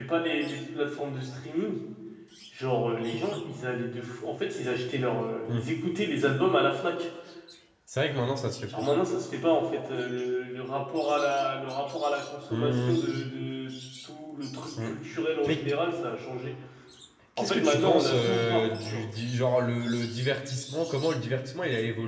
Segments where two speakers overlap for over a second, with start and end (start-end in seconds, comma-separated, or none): 17.4-19.0